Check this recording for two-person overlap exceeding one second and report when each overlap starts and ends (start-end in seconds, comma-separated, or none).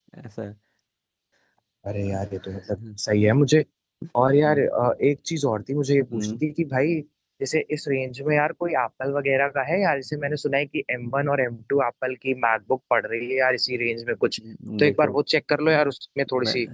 none